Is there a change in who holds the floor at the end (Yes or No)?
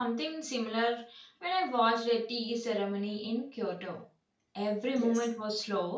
No